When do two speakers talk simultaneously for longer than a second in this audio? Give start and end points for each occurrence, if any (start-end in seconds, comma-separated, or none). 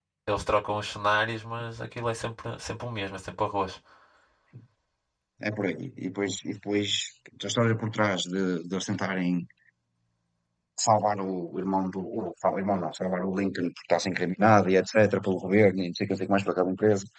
none